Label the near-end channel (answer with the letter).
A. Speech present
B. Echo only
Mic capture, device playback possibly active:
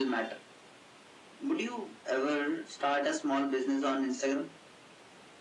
B